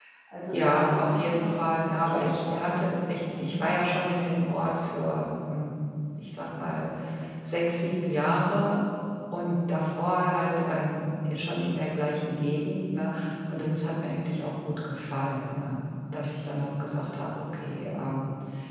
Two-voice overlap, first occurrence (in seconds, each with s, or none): 0.5 s